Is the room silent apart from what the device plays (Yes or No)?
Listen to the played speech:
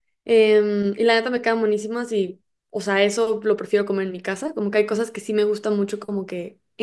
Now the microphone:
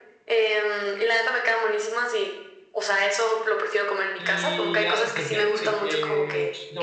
No